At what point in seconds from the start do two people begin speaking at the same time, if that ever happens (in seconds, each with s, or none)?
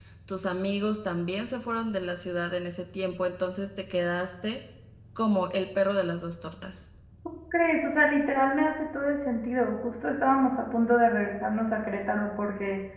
none